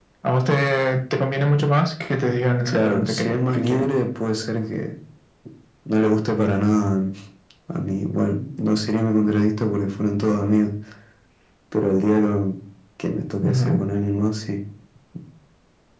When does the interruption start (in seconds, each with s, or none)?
2.6 s